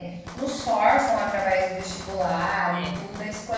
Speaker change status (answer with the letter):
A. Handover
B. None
B